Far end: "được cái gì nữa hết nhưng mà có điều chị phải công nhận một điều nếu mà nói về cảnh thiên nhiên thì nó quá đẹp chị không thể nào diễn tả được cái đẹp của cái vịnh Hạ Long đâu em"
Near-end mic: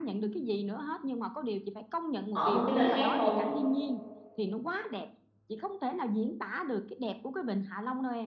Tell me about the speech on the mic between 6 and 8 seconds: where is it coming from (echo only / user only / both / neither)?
echo only